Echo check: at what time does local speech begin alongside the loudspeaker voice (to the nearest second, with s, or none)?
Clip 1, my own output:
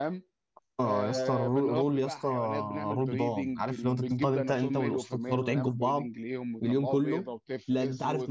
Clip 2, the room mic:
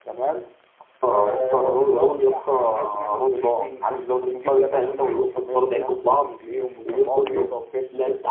none